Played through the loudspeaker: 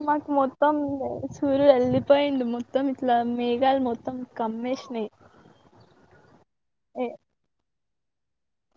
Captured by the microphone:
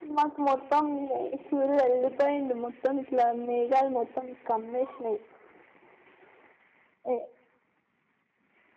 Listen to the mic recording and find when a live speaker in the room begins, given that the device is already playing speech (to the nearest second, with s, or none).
none